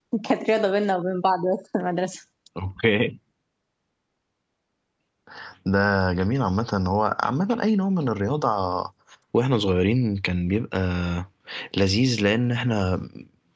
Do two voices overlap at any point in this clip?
No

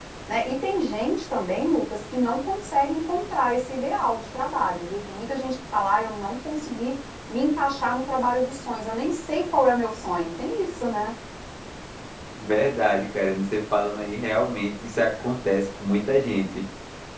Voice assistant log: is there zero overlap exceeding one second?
Yes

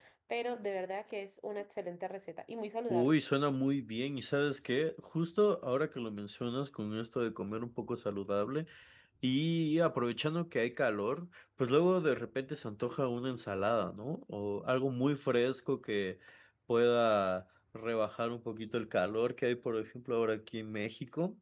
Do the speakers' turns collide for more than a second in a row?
No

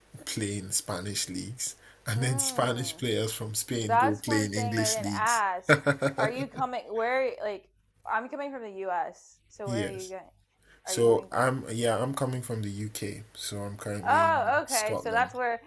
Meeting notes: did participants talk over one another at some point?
Yes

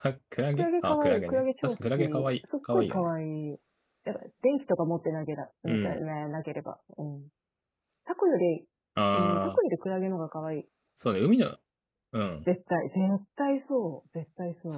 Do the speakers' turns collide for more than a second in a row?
Yes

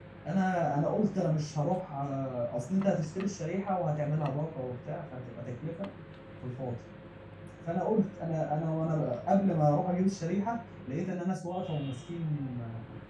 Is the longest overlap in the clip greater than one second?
No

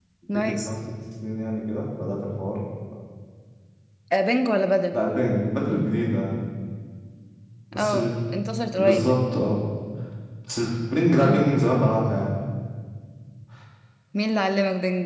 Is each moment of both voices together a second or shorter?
Yes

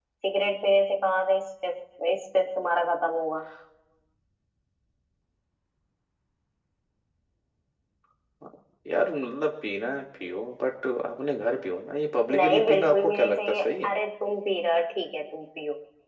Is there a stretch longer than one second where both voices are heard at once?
Yes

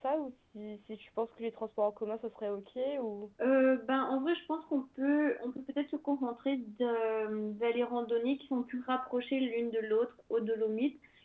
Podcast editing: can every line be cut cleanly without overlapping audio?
Yes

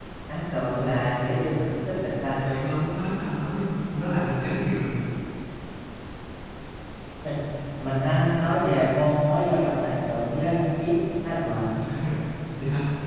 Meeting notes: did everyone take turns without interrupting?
Yes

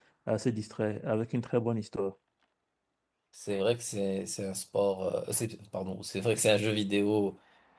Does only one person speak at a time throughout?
Yes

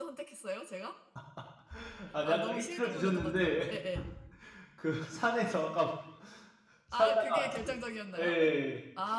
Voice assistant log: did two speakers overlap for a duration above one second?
Yes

